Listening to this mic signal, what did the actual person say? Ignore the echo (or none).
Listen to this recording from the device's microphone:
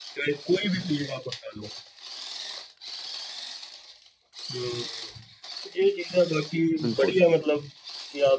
बिल्कुल